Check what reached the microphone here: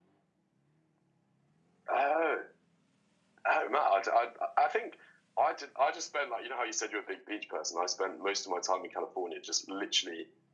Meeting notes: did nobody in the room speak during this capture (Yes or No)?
Yes